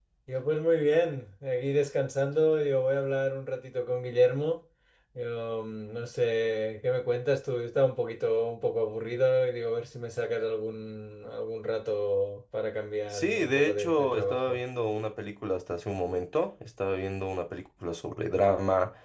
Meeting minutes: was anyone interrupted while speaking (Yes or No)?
Yes